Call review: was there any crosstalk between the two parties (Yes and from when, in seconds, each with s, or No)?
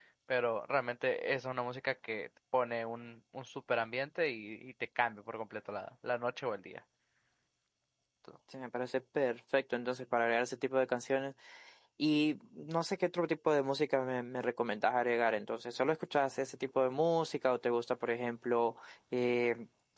No